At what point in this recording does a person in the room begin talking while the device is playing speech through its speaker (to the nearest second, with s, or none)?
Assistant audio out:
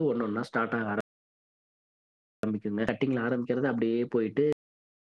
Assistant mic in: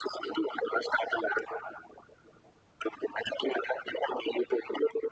none